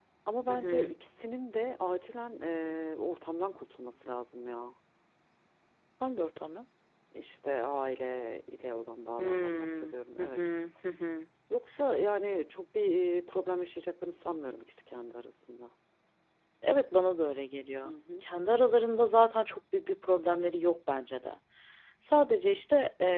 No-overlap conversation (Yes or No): No